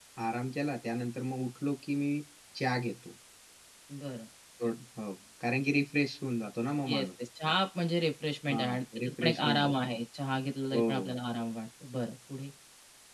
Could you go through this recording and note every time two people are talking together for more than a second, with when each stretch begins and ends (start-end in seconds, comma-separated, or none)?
8.5-9.7